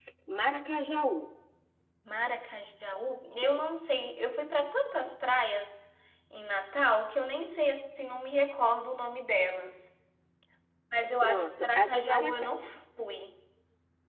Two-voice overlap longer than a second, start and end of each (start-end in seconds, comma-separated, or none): 11.2-12.5